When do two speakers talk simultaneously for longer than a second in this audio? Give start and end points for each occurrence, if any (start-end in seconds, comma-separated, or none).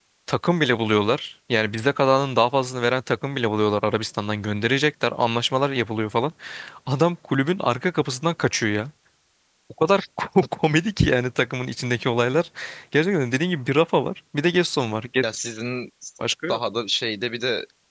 none